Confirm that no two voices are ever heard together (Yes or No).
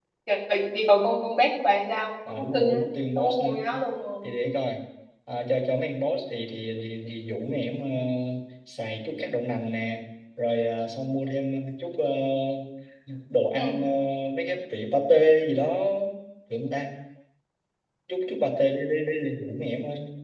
No